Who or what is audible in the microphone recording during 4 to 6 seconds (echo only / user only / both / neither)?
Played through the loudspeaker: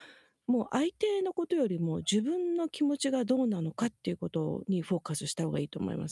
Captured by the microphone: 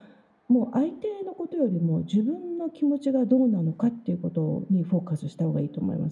echo only